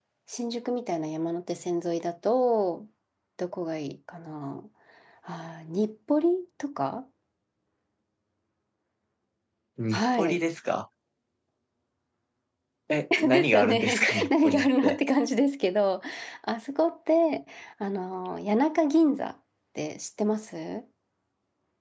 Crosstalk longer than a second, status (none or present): present